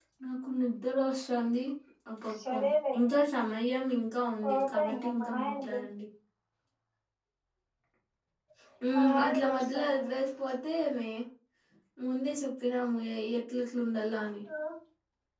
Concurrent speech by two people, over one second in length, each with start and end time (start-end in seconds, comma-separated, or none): 4.4-5.8, 8.9-10.1